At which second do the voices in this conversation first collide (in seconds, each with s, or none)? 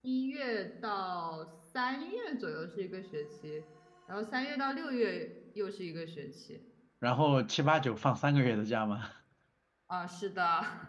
none